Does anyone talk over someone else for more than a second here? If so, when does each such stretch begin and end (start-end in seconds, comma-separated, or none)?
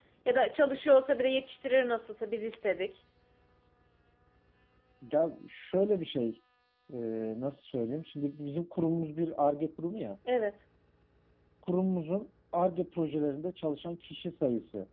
none